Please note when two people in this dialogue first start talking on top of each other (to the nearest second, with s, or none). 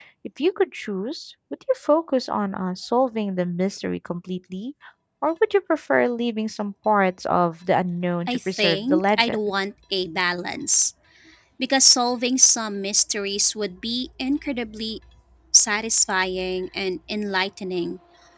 8 s